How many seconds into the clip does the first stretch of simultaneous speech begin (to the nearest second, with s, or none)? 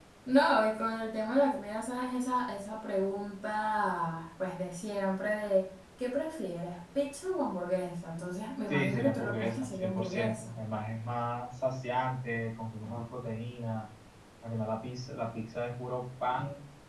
9 s